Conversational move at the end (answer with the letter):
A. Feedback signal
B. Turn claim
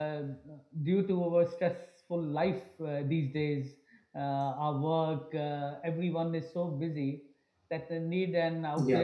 A